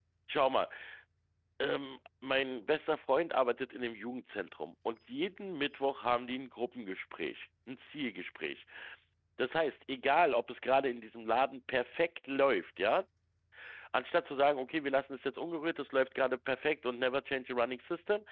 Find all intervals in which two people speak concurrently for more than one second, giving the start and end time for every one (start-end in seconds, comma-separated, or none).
none